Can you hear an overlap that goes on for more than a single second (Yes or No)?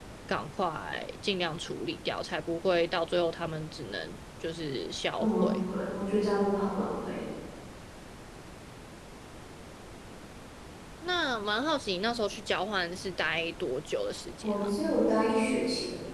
No